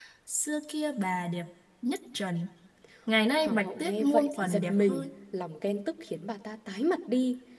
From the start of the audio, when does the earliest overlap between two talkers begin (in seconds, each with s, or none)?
3.4 s